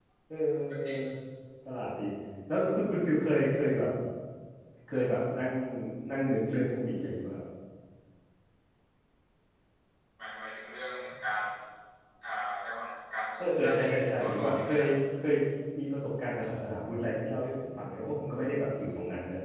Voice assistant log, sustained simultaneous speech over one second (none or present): present